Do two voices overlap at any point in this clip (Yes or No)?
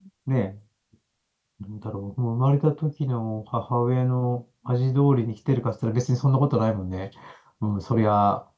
No